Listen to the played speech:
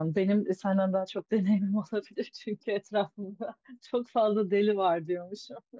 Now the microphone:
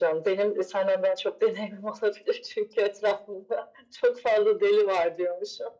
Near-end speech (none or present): none